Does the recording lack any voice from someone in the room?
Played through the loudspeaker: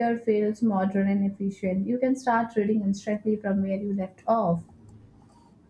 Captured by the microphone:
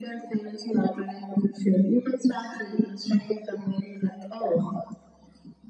Yes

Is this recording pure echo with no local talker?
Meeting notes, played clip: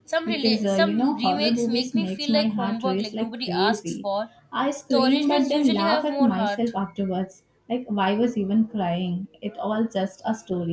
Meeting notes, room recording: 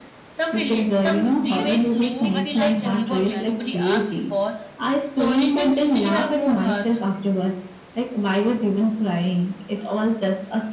No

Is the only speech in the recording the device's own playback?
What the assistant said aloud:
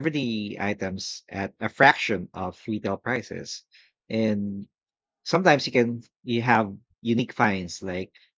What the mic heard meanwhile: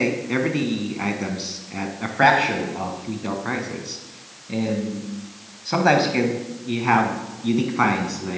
Yes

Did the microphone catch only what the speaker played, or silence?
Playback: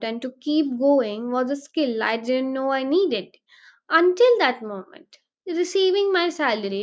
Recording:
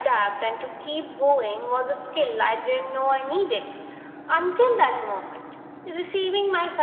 Yes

